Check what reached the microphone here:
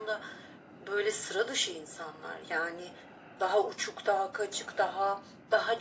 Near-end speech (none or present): none